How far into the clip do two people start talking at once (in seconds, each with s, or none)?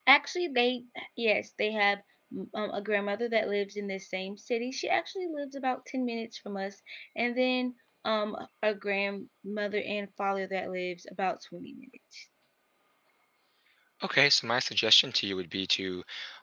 none